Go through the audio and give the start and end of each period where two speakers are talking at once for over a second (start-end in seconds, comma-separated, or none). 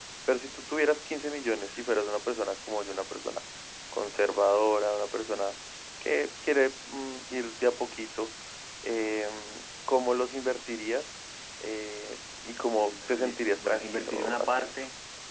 12.8-14.7